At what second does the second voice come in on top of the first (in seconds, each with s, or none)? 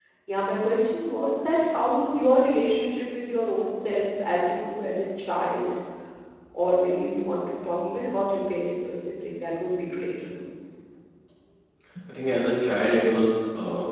none